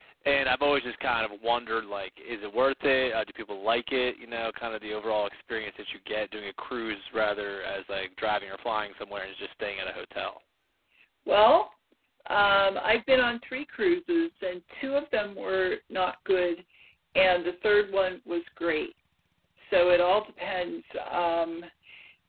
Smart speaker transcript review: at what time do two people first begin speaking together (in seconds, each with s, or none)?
none